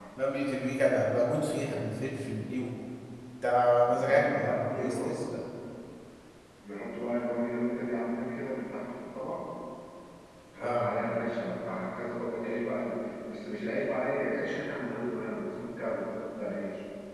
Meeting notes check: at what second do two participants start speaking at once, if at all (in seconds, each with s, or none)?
3.9 s